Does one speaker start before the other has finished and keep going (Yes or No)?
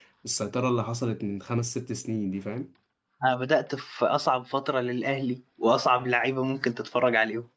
No